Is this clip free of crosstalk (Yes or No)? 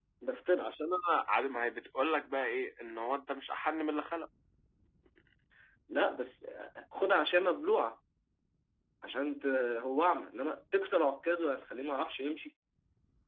Yes